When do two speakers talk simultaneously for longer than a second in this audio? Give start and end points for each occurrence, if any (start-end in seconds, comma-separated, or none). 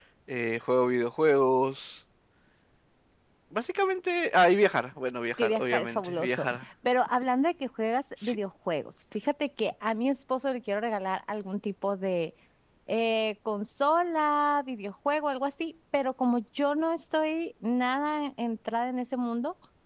5.3-6.6